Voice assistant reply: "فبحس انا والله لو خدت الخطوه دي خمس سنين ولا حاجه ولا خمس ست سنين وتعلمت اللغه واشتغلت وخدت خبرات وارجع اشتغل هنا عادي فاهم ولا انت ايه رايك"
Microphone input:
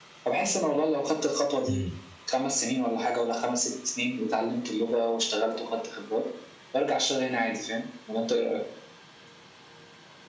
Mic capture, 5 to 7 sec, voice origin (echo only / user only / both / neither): echo only